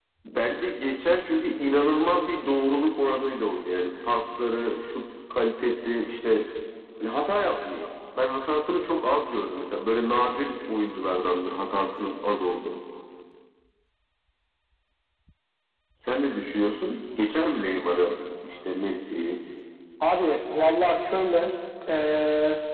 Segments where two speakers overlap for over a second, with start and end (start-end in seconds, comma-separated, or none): none